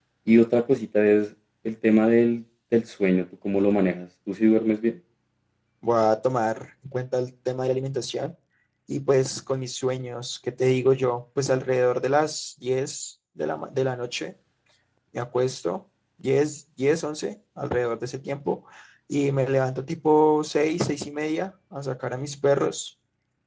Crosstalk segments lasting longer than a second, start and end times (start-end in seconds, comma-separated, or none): none